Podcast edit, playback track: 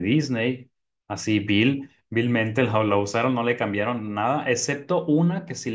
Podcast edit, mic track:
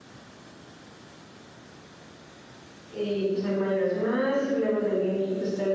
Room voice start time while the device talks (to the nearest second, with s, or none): 3 s